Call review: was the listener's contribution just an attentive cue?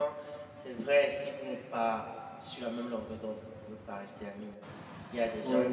Yes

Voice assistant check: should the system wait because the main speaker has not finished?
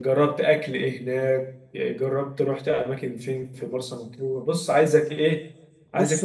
Yes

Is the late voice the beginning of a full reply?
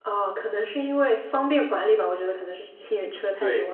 Yes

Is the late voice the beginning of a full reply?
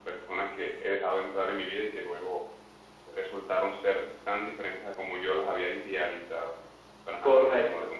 Yes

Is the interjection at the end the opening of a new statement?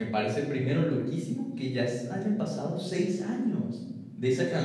No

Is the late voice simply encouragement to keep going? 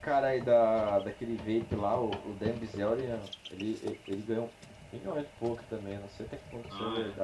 No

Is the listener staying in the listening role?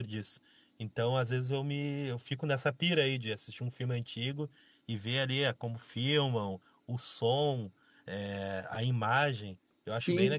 No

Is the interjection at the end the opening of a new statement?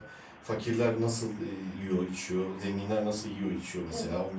No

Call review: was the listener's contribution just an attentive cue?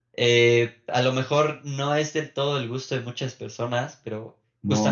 No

